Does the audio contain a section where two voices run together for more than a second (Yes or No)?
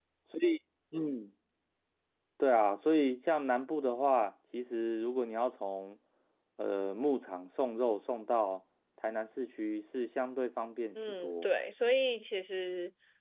No